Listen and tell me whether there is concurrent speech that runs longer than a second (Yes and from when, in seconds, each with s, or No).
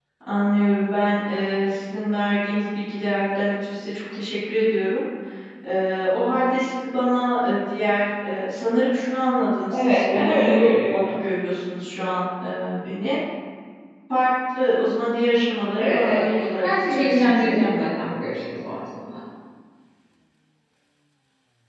Yes, from 9.7 s